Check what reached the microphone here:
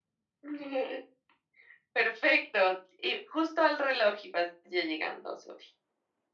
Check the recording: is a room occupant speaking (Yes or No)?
No